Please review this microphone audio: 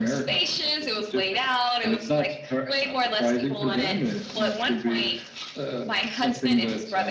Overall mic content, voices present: echo only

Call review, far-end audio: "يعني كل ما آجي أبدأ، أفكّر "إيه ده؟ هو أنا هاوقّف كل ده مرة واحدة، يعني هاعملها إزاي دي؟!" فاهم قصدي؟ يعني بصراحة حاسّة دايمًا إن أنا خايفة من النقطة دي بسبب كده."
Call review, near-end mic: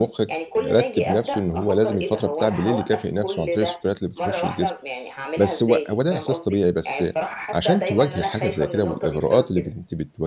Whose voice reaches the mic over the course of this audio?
both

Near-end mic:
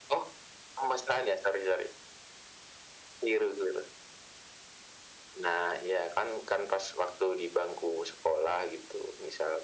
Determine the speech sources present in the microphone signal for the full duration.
echo only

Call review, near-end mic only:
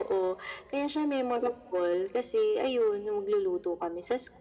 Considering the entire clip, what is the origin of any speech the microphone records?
echo only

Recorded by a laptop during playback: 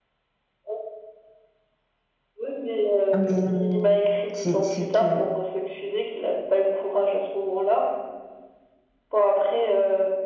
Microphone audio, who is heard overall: both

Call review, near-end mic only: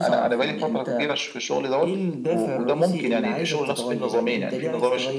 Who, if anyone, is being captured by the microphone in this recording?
echo only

